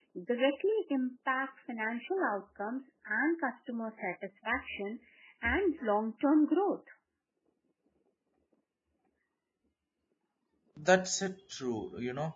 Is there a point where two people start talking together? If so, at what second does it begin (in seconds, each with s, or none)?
none